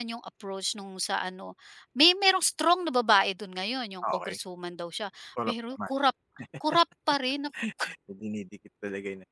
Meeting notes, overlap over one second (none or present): none